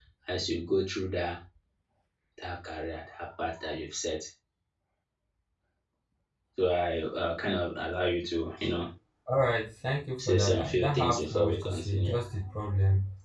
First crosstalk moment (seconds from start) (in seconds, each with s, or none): 10.2 s